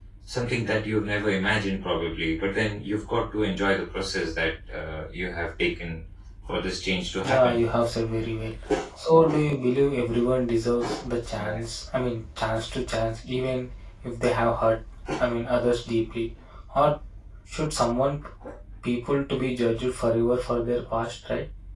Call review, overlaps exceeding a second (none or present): none